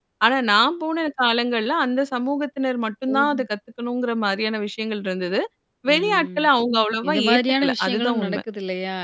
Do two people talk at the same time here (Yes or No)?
Yes